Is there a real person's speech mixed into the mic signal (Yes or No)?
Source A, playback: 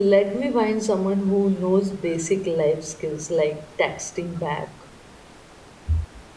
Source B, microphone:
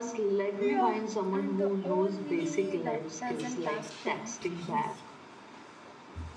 Yes